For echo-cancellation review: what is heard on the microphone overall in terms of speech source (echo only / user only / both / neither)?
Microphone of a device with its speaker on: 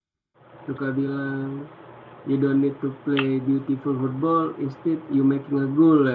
user only